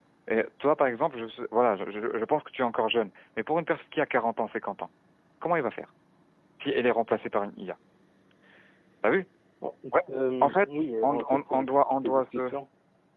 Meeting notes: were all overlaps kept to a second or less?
No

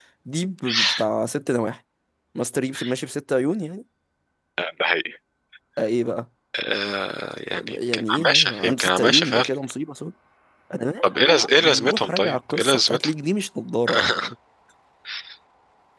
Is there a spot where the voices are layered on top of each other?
Yes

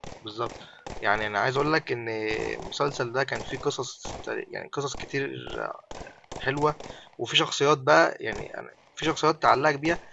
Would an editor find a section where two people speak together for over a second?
No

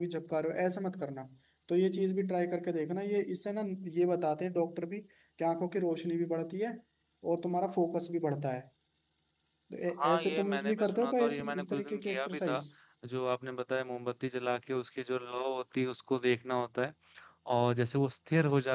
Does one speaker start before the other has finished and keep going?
Yes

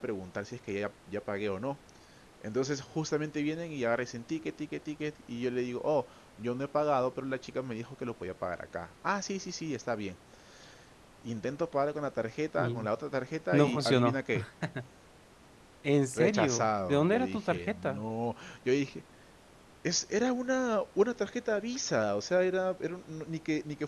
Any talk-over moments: Yes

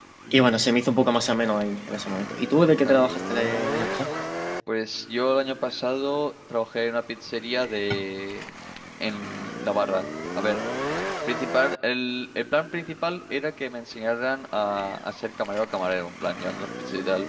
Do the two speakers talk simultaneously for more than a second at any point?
No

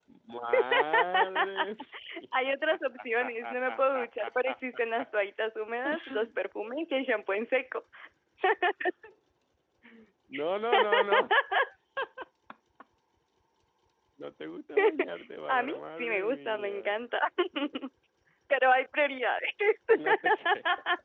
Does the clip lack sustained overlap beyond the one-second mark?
No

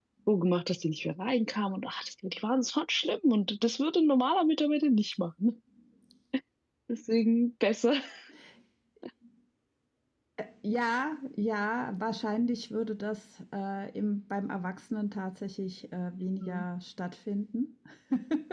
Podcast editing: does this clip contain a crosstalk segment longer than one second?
No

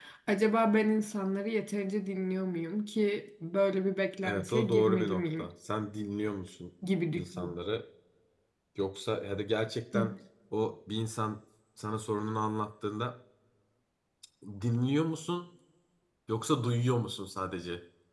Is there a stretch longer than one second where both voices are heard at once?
Yes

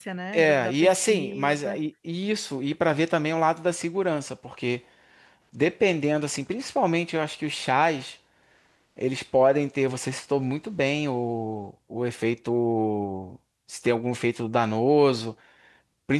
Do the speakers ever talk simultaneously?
Yes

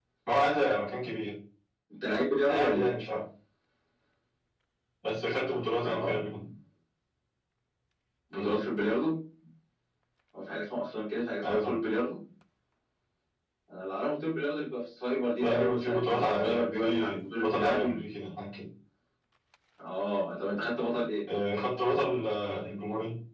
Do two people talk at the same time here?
Yes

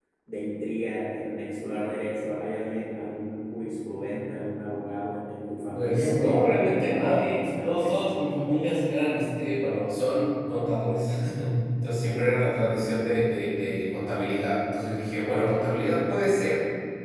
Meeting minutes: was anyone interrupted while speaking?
Yes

